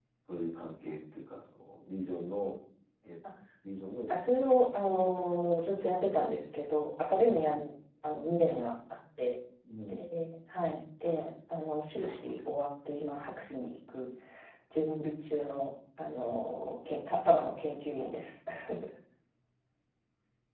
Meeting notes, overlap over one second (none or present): present